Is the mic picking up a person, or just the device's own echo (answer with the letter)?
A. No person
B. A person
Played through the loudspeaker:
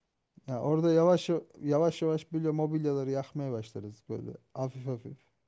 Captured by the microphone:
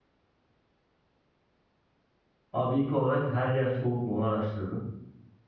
B